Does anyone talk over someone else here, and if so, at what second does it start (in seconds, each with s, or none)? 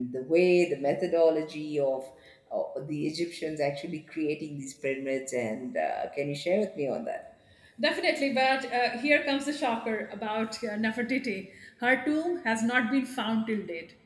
none